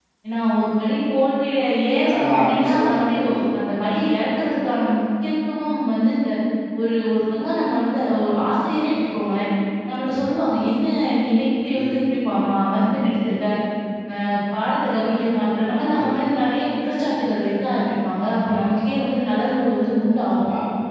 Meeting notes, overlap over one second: present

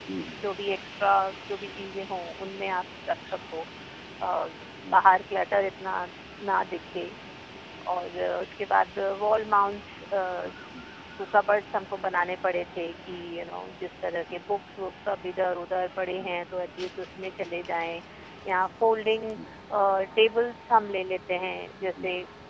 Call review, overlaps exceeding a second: none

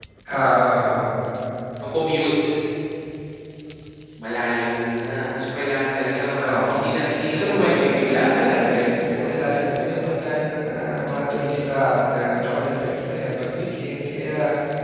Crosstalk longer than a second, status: present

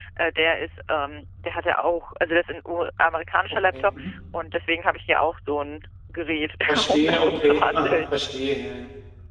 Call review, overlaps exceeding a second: present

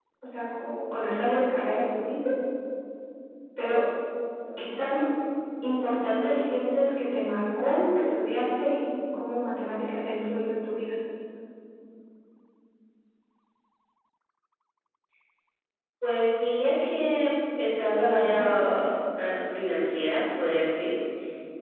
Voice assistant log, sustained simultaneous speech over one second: none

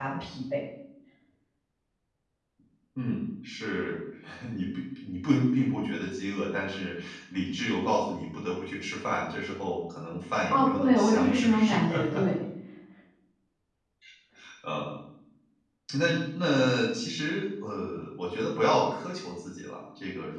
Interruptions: present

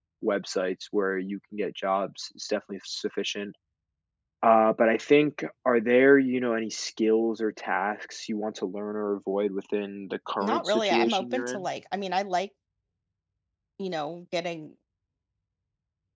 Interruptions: present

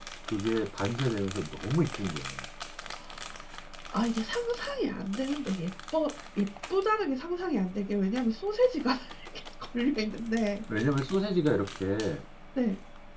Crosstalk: none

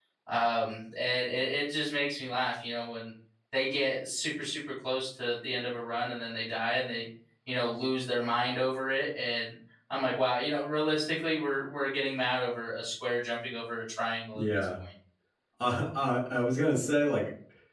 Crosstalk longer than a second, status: none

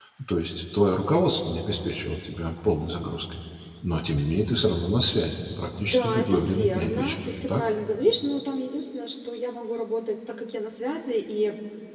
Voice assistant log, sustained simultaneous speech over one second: present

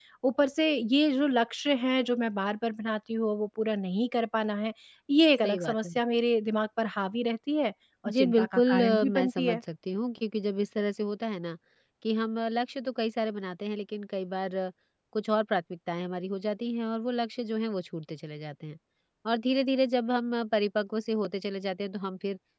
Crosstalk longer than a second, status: present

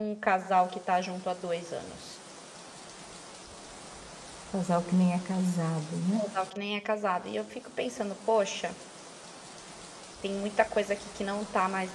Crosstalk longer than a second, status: none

